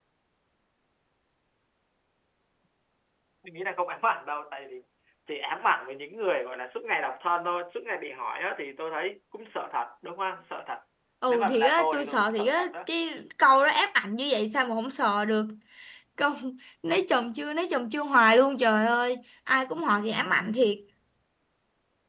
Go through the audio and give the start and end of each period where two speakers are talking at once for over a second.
11.3-12.7

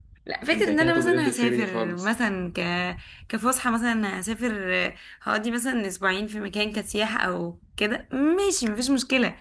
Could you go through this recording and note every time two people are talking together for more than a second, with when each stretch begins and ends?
0.5-2.1

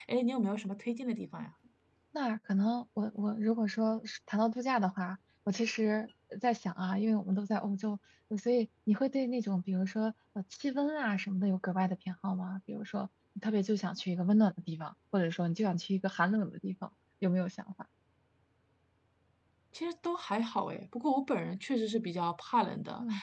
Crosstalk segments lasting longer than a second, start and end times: none

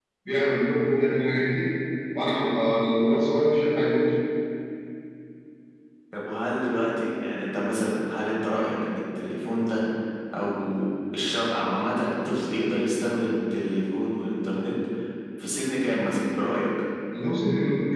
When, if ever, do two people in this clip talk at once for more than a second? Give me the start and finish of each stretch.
none

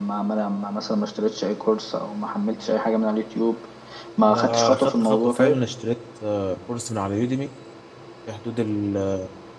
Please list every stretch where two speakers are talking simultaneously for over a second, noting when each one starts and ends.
4.3-5.6

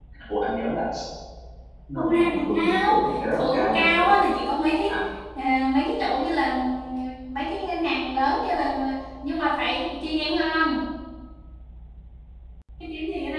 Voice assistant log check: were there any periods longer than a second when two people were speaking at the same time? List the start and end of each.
1.9-4.1

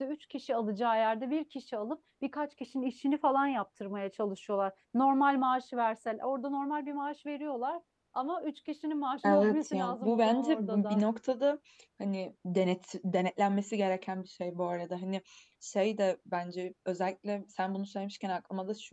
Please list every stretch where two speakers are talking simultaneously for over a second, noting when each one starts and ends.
9.2-11.0

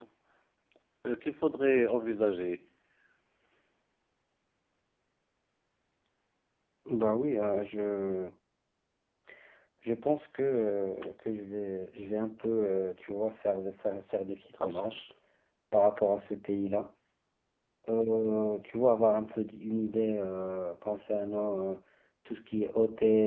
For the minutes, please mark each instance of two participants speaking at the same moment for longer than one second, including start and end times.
none

